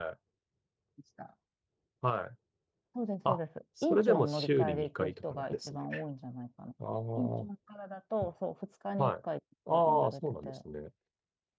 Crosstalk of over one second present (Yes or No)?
Yes